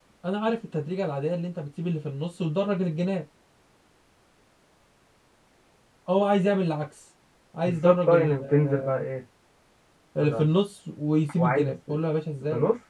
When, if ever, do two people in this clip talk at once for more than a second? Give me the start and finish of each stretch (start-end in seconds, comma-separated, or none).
7.6-9.0